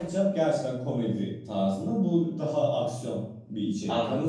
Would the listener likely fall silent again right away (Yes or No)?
Yes